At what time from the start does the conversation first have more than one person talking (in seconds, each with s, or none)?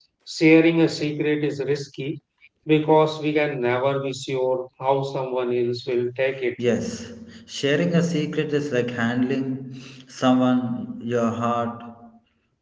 none